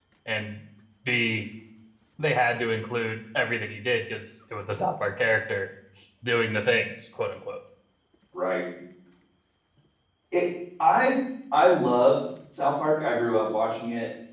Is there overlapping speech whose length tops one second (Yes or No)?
No